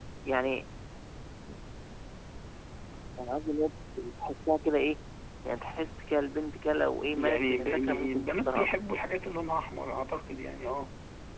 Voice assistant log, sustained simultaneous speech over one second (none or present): present